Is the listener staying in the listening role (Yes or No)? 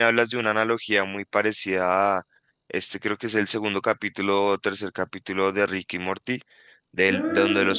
Yes